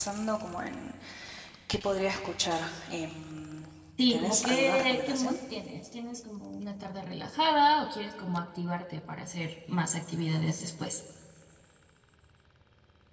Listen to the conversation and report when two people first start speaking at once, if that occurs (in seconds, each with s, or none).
4.1 s